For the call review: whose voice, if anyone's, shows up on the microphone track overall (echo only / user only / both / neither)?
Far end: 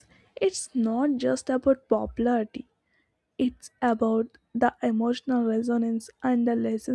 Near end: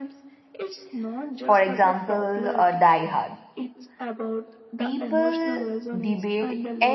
both